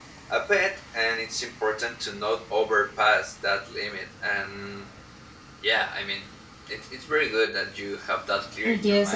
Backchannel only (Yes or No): No